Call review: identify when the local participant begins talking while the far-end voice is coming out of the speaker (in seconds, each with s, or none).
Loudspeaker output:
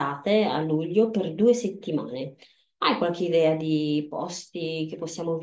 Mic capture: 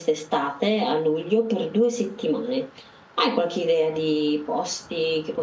none